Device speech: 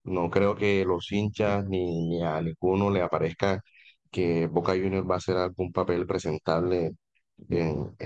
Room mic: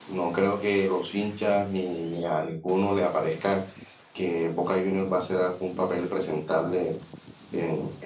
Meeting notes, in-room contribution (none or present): none